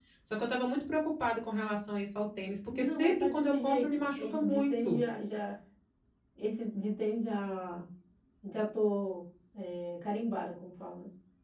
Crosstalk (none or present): present